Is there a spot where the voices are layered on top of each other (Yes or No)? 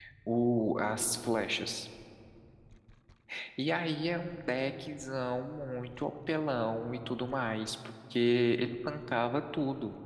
No